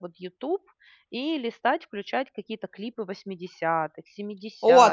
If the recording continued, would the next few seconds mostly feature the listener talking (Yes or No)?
Yes